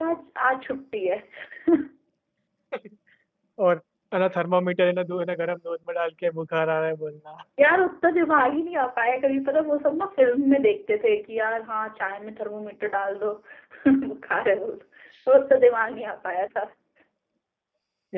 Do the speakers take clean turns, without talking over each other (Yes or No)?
Yes